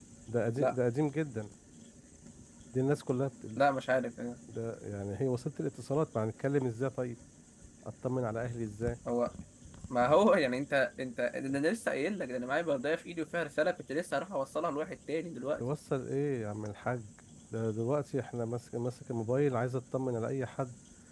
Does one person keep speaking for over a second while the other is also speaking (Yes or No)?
No